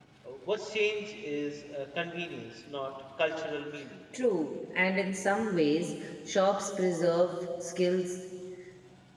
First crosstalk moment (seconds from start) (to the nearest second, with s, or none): none